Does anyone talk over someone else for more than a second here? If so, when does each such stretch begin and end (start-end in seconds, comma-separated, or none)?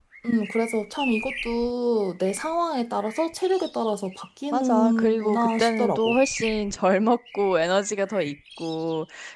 4.5-6.2